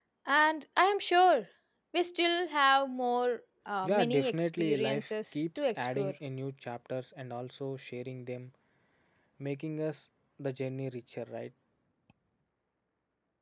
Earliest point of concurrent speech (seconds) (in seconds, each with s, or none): 3.8 s